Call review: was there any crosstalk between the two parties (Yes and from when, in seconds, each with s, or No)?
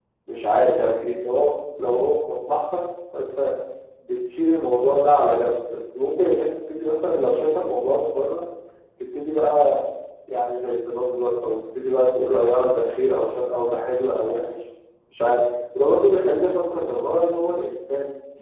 No